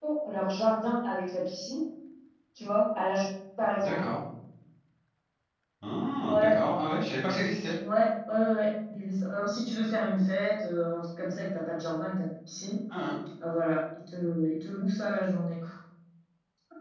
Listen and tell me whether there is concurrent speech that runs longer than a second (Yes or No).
No